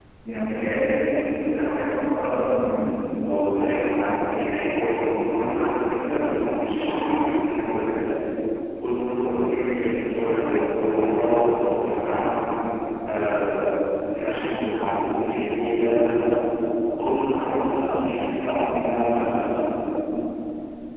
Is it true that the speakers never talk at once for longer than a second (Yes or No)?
Yes